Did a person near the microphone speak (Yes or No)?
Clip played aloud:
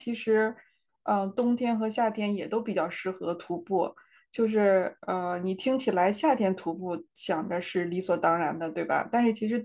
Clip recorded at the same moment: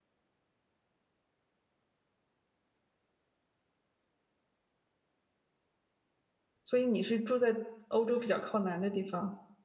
Yes